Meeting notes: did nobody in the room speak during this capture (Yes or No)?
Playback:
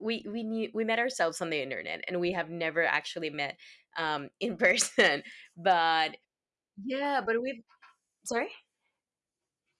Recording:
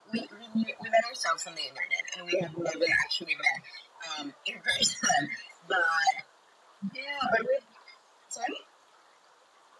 Yes